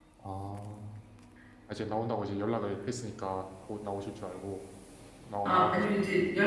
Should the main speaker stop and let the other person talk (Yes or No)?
Yes